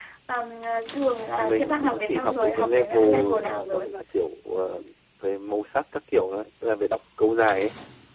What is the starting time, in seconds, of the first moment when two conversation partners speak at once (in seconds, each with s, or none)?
1.4 s